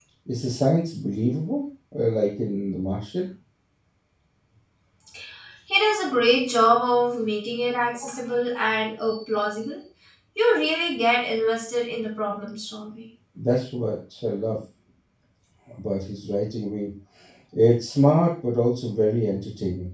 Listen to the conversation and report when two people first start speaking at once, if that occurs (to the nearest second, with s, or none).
none